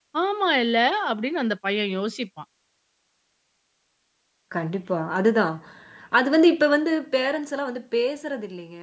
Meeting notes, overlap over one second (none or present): none